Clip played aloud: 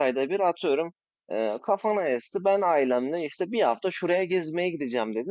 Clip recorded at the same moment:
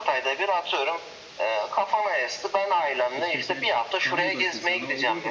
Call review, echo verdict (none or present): present